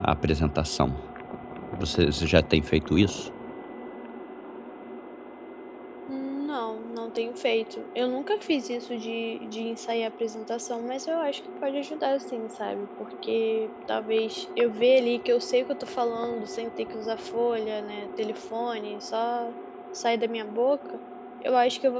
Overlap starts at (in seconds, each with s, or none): none